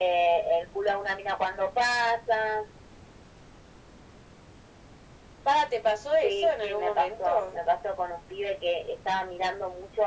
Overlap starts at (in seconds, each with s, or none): 6.2 s